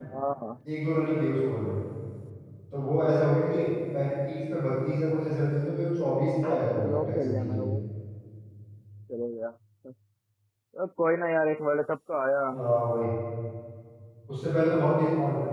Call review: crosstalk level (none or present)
present